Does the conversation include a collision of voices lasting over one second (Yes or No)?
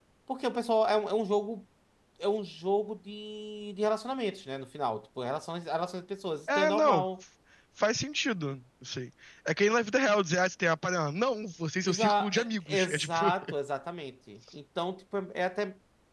Yes